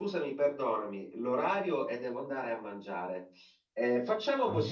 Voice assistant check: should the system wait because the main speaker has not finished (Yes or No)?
Yes